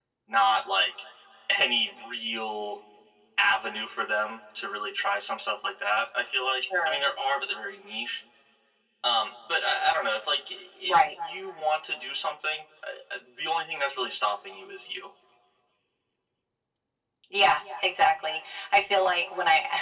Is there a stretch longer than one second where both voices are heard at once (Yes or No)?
No